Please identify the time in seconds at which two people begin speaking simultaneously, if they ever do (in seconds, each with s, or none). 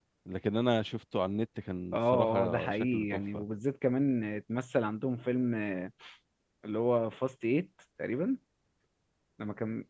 1.9 s